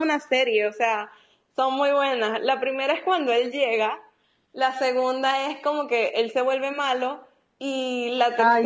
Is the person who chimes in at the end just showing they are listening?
Yes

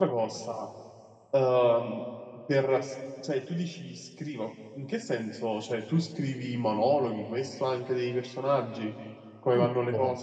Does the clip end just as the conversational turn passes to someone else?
Yes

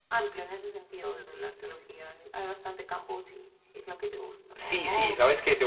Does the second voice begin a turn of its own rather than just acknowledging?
Yes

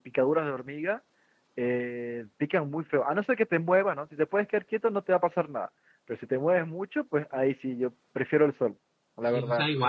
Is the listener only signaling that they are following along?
No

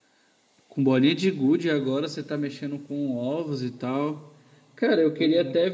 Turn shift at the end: No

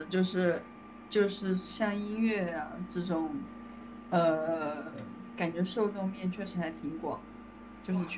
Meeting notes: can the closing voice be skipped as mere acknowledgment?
No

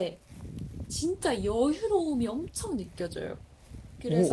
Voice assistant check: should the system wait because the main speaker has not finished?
No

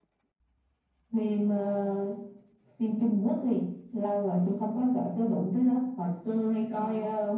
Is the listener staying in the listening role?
Yes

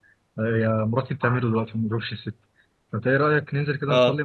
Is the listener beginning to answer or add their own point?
No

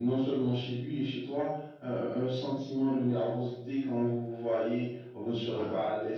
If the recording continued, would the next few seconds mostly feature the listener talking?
No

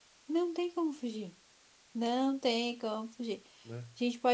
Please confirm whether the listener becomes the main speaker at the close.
No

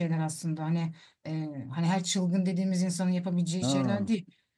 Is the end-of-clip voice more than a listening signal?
No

